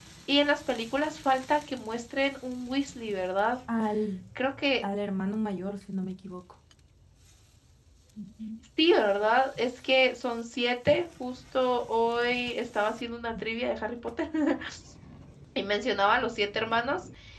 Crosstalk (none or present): none